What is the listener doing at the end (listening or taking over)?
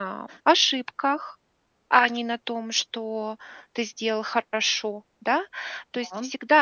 listening